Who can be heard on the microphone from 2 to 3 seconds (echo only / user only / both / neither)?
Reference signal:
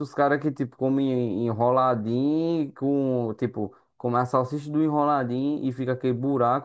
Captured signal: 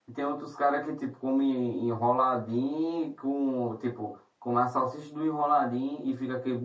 echo only